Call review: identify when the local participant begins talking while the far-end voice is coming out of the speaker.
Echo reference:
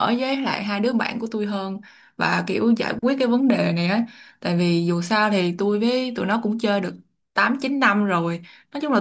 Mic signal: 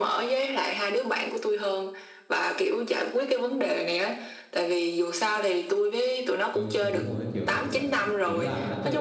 7 s

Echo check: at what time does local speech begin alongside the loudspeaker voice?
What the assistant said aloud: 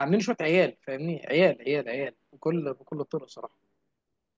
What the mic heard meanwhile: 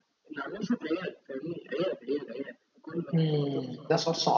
3 s

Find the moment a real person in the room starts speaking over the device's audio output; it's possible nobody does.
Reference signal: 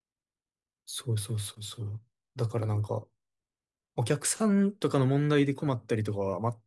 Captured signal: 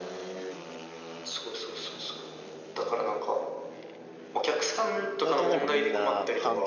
5 s

